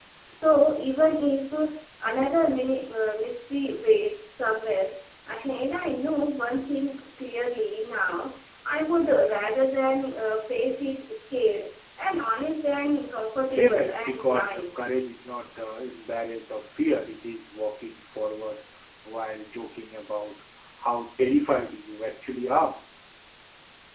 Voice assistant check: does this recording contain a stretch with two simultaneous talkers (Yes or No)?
Yes